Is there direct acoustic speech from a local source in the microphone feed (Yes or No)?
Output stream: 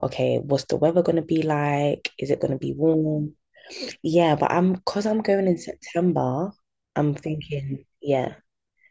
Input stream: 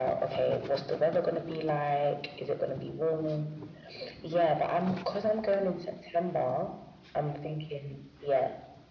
No